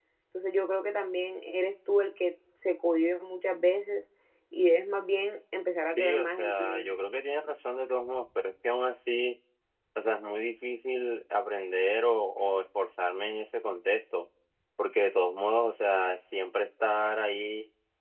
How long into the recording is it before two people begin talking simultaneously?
6 s

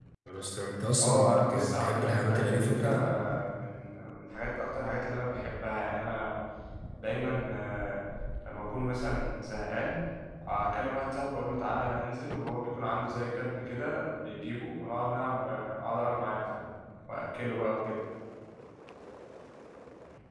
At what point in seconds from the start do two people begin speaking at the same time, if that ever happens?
1 s

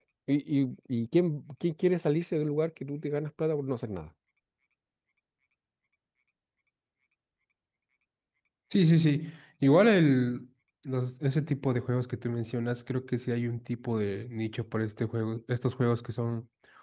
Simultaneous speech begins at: none

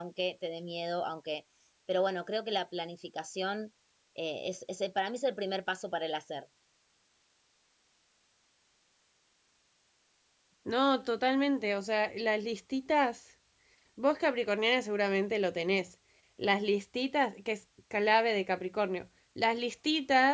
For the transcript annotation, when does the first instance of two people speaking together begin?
none

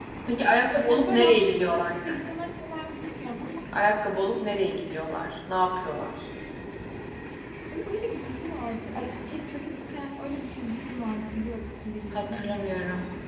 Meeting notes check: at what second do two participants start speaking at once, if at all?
1 s

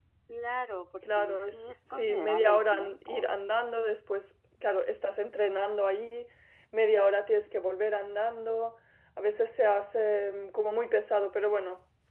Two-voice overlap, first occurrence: 1 s

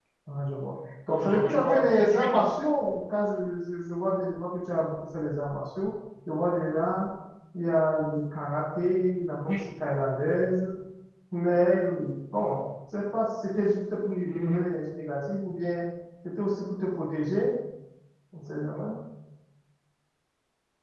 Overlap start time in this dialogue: 1 s

